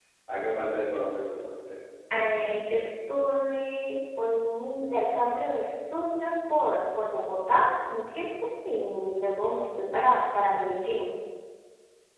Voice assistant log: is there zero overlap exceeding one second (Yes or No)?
Yes